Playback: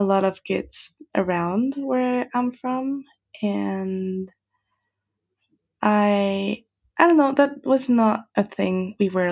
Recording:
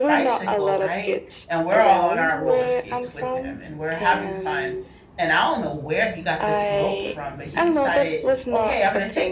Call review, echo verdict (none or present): present